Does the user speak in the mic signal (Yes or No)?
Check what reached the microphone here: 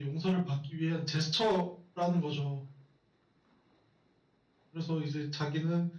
No